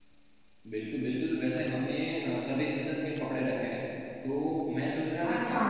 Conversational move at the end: listening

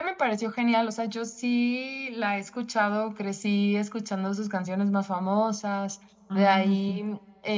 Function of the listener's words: listening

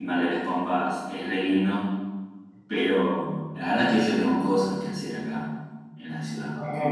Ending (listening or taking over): listening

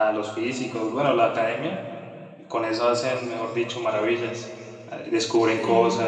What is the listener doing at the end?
listening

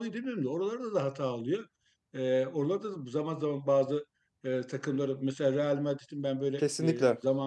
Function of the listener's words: listening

